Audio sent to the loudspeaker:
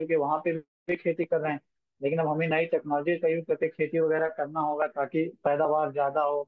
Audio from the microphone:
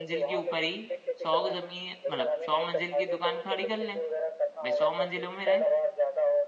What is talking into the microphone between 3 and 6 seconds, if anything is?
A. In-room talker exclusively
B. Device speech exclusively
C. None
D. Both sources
D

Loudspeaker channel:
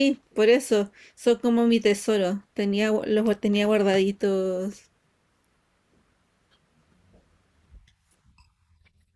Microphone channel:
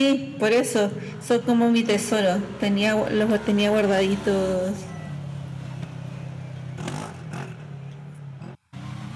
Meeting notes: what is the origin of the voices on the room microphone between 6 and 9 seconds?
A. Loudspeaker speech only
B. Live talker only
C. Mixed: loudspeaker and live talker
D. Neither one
D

